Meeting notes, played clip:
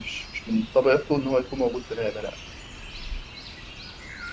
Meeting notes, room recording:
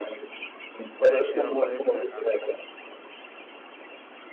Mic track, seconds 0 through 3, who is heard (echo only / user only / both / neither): both